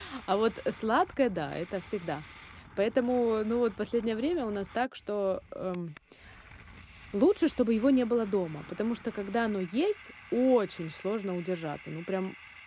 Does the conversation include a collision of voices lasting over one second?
No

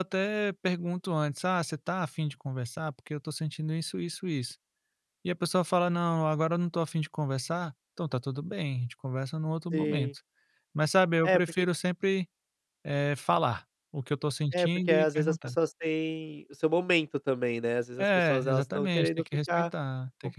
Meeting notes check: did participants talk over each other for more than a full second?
Yes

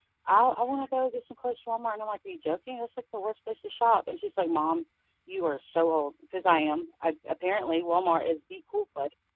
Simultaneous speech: No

